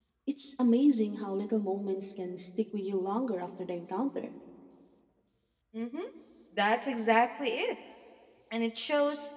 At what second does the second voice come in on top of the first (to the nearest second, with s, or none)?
none